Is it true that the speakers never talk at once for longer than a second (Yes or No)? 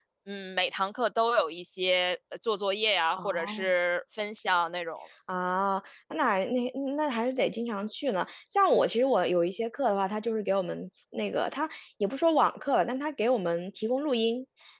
Yes